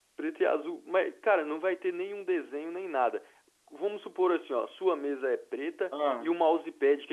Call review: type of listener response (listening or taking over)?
listening